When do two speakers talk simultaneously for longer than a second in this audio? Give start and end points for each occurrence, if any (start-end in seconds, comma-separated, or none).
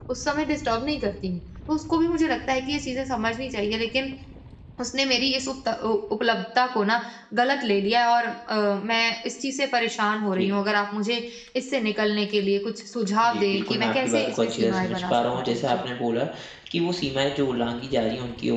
13.2-15.8